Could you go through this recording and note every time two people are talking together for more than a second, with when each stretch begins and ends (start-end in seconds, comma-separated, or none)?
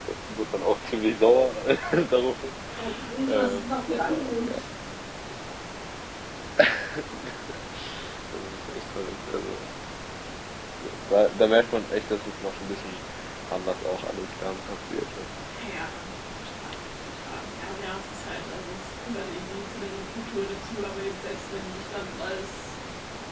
3.3-4.6